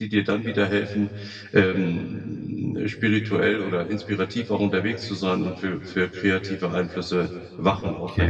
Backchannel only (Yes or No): No